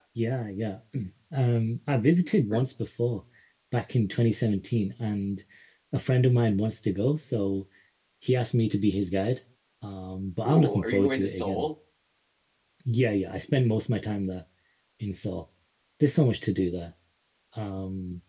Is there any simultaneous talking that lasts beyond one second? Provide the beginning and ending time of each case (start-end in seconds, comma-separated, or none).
10.4-11.7